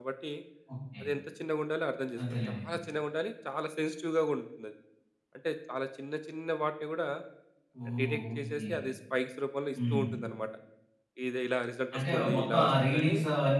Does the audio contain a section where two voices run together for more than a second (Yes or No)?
Yes